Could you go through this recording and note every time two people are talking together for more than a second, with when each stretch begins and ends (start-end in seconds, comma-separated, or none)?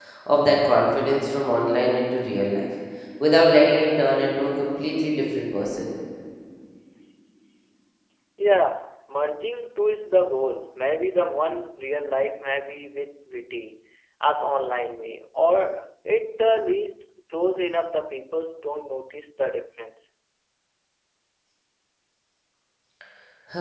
none